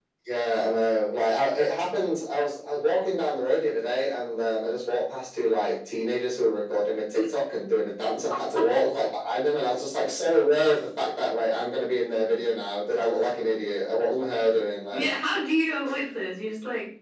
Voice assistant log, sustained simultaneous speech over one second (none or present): none